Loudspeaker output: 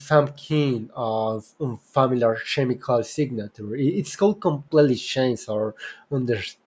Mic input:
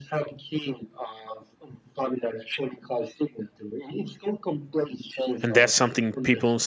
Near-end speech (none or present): present